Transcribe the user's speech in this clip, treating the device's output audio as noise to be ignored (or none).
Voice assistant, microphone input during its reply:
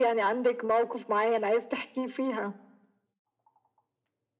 none